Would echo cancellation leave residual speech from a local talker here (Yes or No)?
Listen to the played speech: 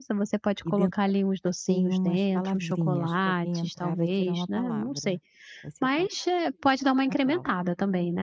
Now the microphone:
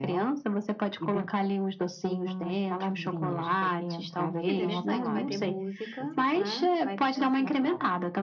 Yes